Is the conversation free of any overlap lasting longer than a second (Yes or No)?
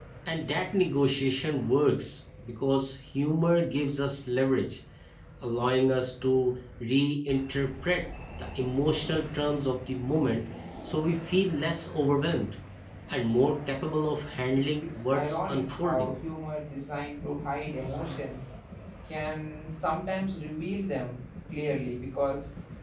No